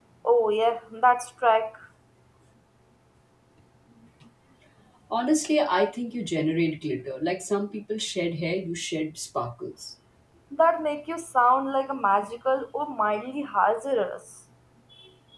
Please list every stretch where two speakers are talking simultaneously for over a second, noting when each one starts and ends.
none

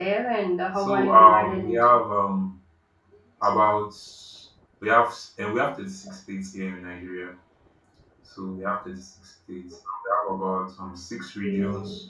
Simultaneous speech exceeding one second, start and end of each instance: 0.8-2.0

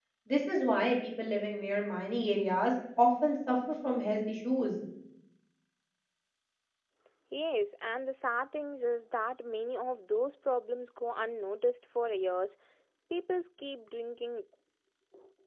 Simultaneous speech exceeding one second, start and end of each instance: none

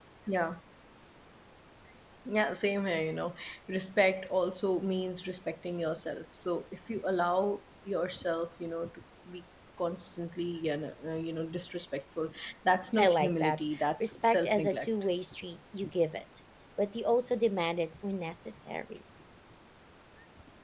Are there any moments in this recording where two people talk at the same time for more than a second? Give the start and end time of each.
13.0-14.9

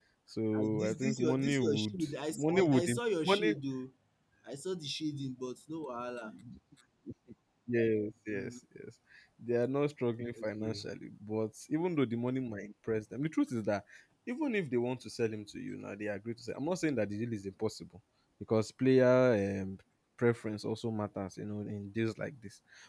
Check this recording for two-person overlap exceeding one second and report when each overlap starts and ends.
0.6-3.5

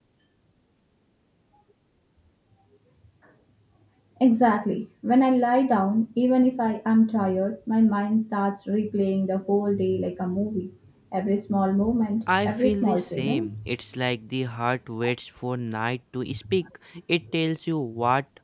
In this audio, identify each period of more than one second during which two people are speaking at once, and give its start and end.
12.3-13.5

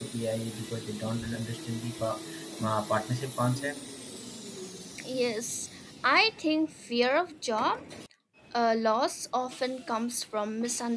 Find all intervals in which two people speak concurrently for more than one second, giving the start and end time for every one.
none

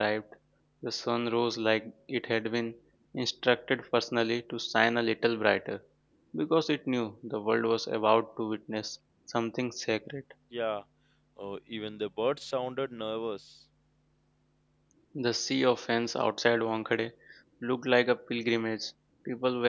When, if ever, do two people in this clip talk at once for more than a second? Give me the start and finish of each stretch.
none

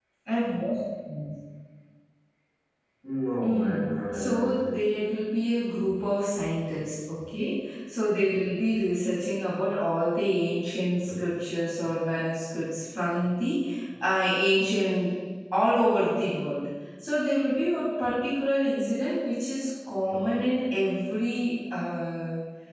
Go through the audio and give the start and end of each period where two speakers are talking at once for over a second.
3.4-4.7

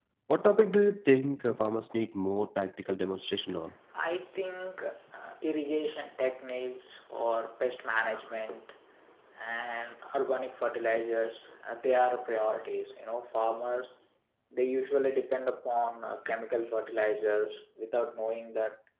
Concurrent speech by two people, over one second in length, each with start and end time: none

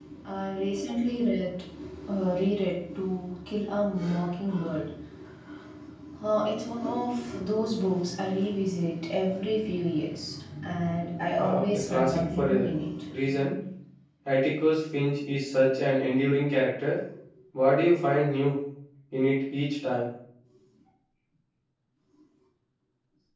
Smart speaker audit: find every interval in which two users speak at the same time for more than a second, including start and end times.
11.4-12.7

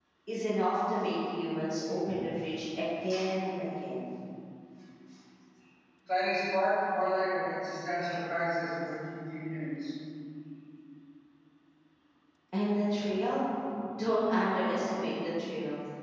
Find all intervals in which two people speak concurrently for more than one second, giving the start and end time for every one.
none

